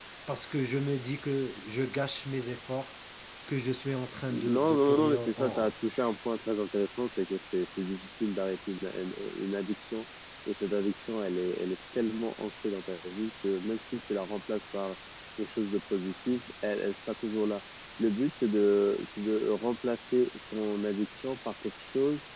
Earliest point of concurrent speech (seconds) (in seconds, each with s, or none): 4.3 s